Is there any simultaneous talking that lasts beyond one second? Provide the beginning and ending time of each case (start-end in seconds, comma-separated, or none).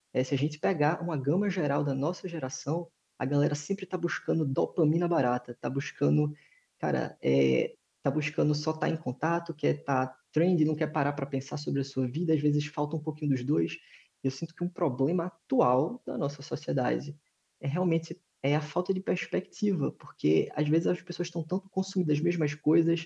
none